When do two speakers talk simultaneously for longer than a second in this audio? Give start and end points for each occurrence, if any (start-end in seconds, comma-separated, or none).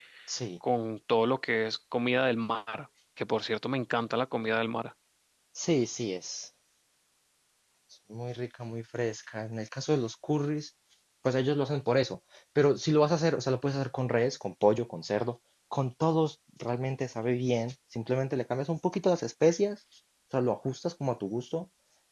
none